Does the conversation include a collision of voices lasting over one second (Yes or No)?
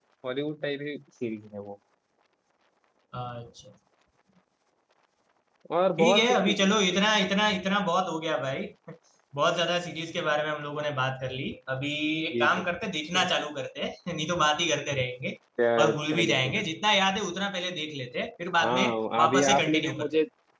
Yes